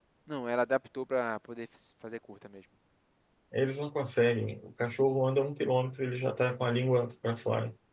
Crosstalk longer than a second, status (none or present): none